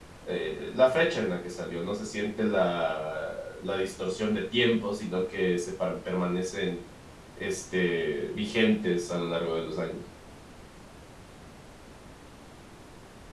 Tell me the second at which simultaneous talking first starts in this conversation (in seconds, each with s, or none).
none